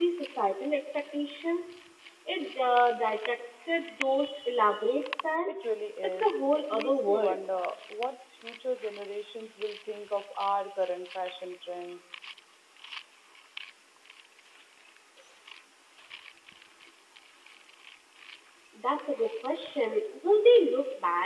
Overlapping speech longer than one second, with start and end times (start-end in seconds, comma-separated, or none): 6.0-7.4